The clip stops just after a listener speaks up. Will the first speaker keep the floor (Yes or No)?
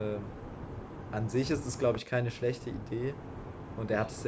Yes